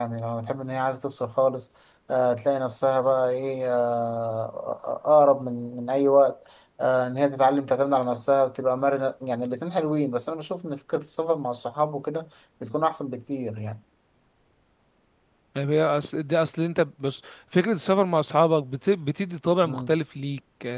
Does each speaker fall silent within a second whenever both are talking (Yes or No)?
Yes